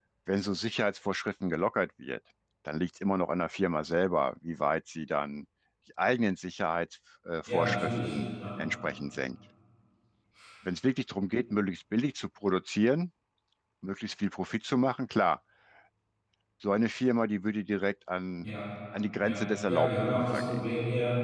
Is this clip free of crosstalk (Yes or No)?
No